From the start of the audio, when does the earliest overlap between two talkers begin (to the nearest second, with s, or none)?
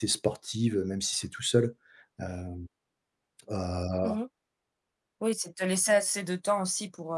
none